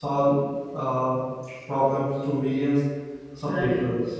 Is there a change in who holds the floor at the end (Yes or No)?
No